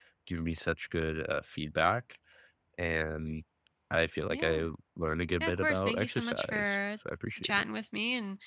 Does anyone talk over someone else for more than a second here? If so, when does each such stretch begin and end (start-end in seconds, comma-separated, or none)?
5.4-6.8